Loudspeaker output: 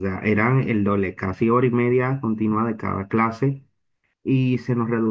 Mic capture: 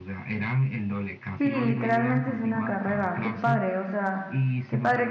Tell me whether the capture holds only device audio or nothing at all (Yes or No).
No